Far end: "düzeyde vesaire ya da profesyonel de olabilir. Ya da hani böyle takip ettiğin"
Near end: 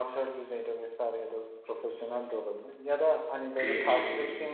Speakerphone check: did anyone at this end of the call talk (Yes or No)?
Yes